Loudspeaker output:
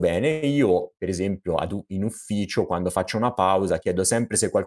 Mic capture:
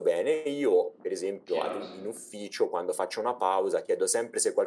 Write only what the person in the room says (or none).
Chiaro, sì.